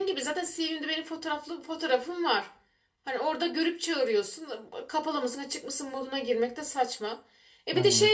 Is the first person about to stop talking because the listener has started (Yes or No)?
No